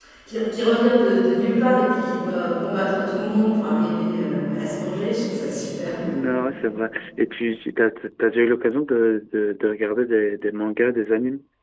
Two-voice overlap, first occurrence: none

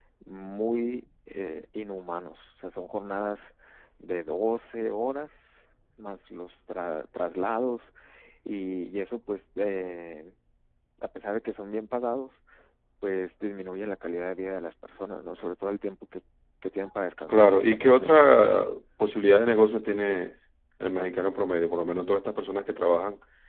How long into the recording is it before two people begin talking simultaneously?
17.3 s

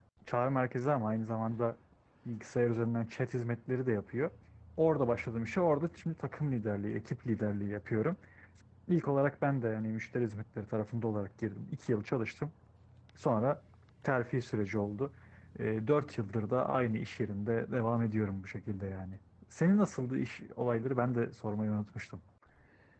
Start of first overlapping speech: none

